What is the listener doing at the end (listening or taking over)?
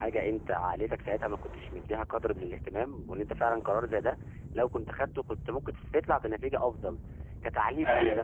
listening